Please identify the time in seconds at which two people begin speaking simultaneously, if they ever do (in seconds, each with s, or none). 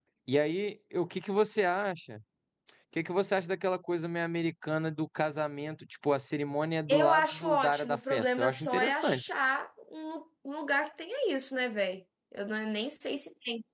6.9 s